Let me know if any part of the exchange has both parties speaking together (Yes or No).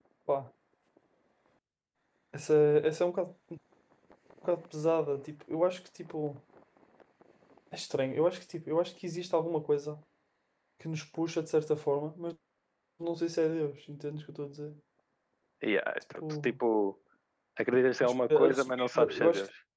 Yes